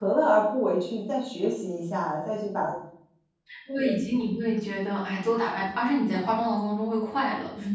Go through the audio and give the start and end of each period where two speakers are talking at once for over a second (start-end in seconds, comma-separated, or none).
none